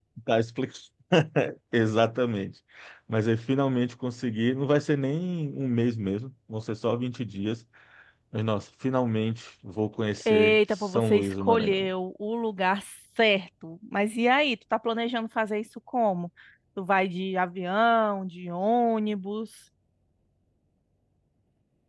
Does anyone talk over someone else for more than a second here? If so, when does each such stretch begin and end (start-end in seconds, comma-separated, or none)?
10.2-11.9